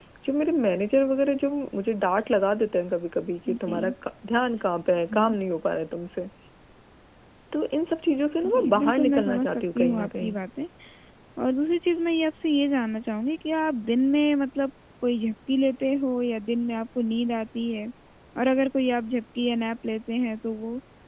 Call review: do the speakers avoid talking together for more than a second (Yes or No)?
No